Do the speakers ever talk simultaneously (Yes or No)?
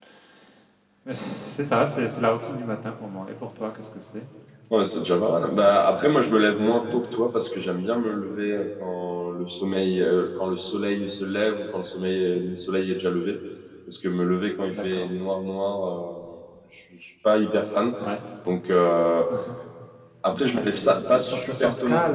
Yes